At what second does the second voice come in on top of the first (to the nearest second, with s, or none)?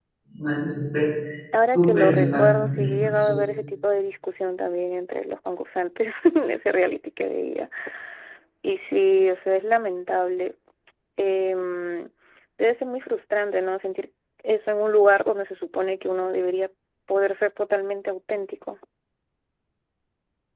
2 s